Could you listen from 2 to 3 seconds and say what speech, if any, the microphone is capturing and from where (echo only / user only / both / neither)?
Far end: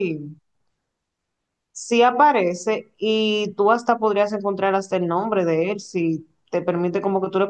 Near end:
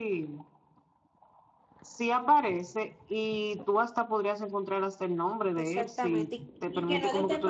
echo only